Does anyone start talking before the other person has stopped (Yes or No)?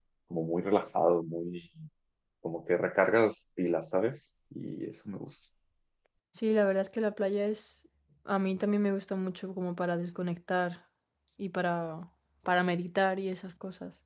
No